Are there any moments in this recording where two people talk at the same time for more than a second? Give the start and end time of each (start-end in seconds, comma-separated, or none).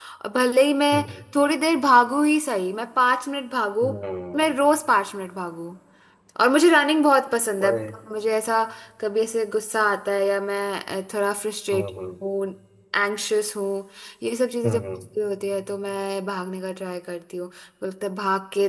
none